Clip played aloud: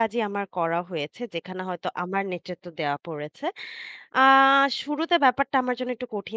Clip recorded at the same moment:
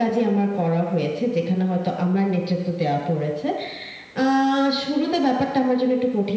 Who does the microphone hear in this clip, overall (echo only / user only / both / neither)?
echo only